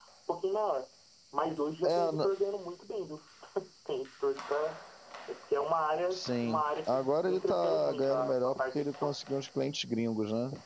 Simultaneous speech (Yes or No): Yes